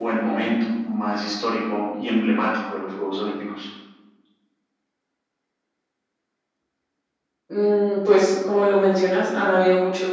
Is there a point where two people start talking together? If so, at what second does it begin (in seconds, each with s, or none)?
none